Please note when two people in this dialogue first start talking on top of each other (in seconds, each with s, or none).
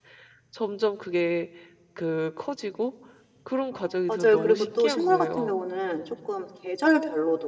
3.7 s